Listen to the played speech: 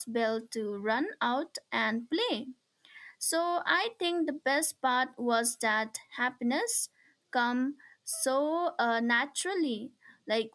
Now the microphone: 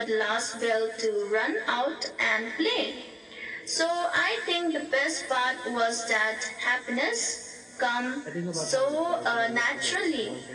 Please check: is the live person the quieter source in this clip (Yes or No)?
Yes